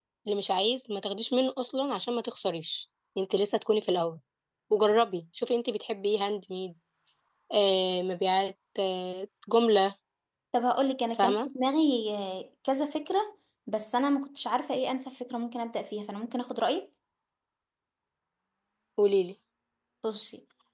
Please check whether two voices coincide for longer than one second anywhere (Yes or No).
No